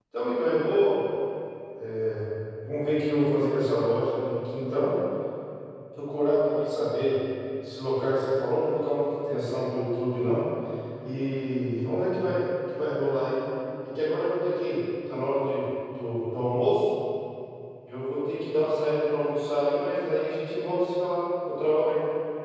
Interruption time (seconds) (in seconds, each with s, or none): none